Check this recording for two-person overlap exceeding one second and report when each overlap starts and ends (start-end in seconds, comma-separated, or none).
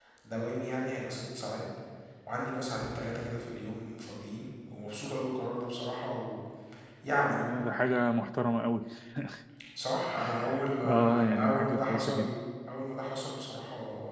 10.9-12.3